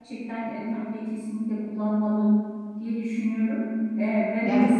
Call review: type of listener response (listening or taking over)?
listening